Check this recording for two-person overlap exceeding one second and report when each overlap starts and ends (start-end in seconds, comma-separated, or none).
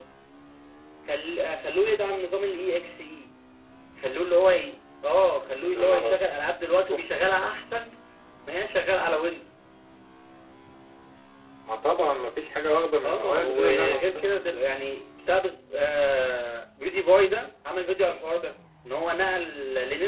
13.0-14.2